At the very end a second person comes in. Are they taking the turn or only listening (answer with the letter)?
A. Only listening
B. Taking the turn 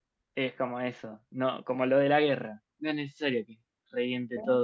A